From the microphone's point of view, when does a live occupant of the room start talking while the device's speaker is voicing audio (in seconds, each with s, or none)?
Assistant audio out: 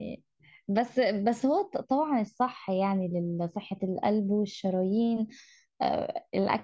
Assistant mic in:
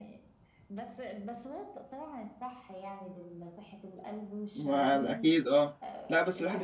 4.6 s